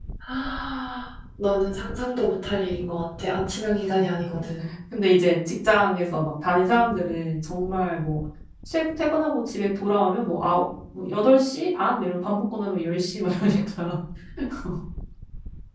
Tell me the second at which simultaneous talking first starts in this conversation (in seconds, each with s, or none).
none